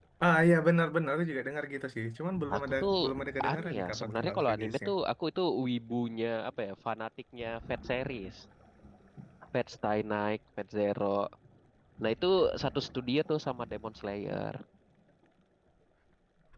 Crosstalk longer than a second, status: present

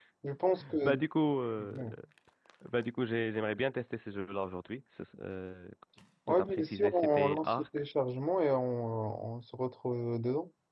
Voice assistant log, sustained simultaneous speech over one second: present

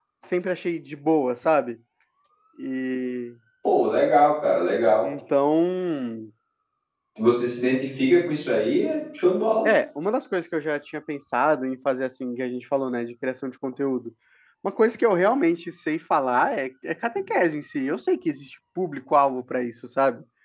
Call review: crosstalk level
none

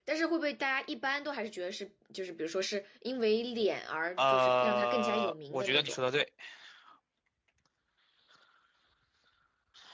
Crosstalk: present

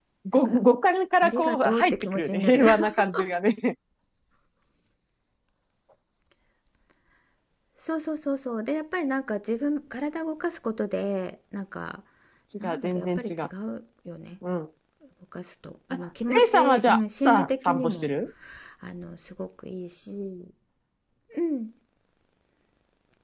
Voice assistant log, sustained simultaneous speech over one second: present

